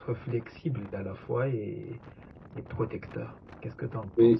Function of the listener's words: taking over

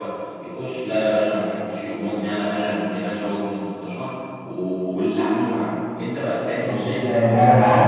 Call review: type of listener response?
taking over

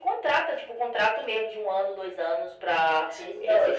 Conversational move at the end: taking over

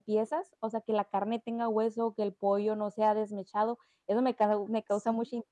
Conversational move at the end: listening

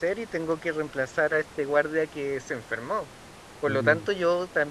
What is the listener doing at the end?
listening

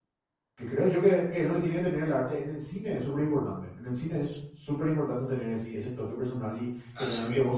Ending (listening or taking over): listening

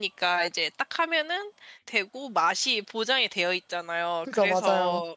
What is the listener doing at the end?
listening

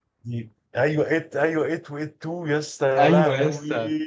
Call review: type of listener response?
taking over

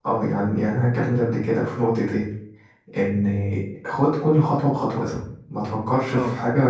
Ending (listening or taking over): taking over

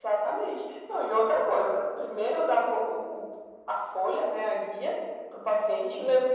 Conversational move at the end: listening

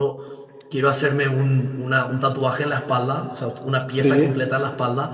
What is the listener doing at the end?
listening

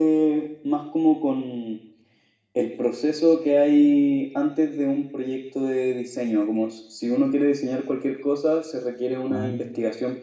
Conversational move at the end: listening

